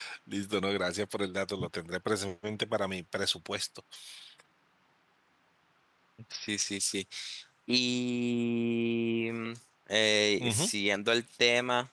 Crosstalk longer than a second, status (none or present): none